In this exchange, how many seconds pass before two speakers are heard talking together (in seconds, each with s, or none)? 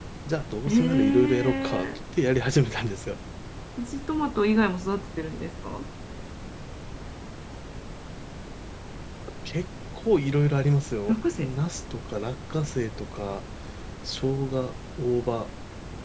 0.7 s